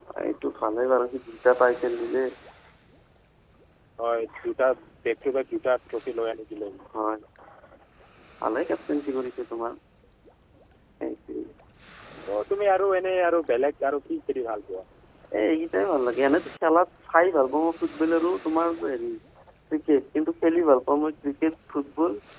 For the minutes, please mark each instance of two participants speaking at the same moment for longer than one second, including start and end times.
none

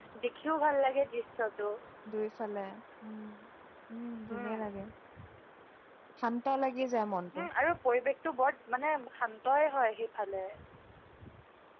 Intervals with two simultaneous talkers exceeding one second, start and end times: none

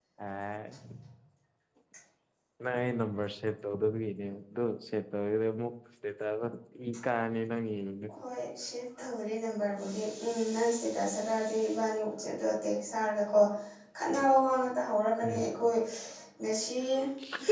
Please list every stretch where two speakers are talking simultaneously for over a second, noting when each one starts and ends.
none

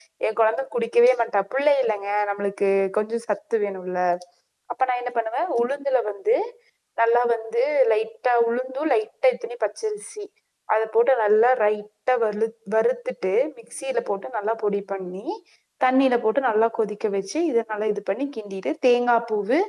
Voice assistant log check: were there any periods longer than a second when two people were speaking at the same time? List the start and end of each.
none

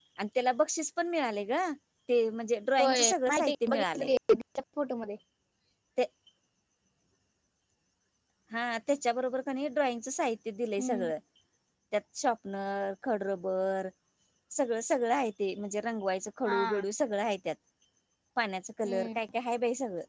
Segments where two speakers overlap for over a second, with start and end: 2.8-4.1

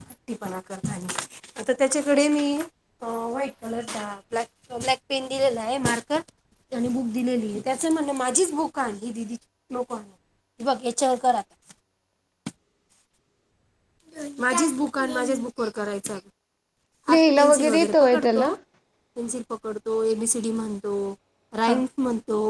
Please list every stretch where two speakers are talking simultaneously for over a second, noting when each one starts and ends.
17.1-18.5

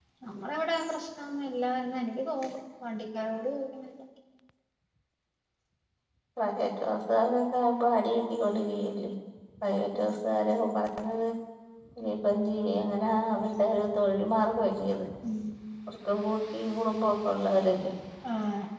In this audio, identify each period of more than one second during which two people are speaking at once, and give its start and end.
none

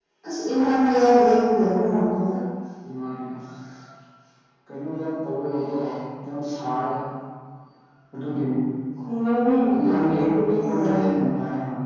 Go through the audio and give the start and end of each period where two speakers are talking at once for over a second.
9.7-11.0

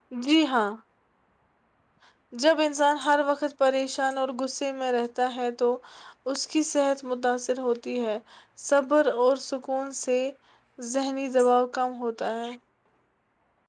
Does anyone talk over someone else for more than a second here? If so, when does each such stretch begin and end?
none

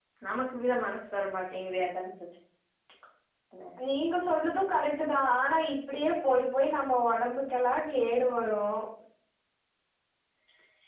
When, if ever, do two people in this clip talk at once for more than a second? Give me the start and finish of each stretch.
none

